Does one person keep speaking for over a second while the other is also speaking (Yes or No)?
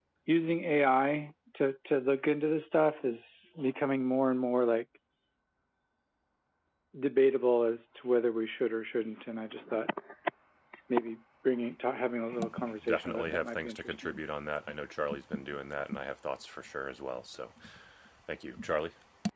Yes